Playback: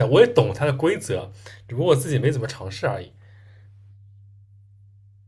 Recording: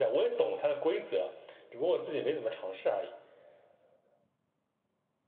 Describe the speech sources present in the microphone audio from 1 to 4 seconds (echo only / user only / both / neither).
echo only